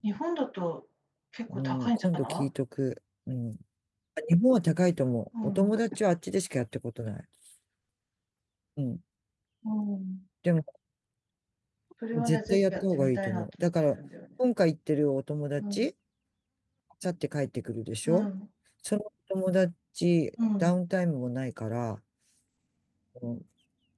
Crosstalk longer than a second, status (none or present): present